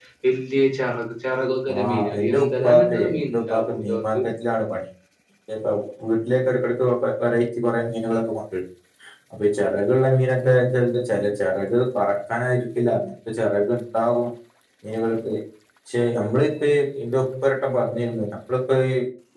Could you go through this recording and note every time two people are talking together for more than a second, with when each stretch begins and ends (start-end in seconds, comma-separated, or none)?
1.8-4.2